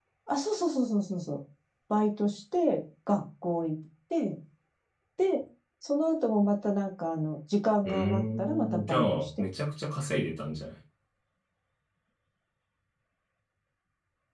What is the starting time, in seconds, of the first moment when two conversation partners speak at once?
7.8 s

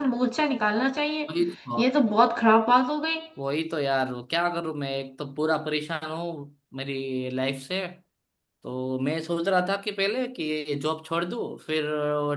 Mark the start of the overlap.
none

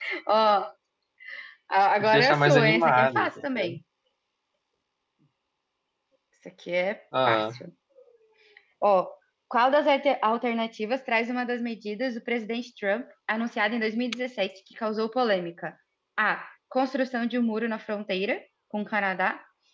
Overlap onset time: 2.0 s

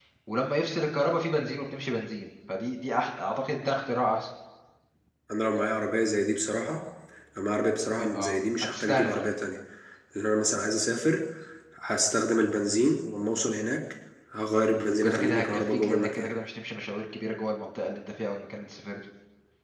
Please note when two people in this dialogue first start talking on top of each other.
7.9 s

